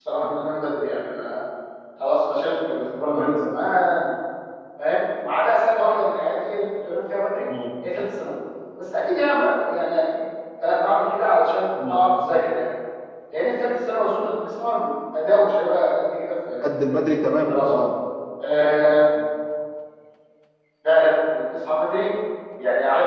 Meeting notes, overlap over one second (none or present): none